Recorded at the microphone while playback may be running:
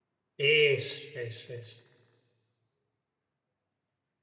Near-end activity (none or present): present